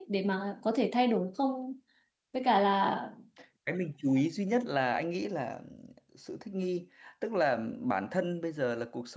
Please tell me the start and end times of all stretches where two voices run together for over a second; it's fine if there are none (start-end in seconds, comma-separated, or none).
none